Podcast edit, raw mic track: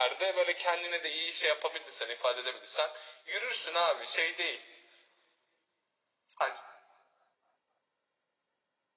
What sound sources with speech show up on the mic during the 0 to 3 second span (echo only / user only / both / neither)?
echo only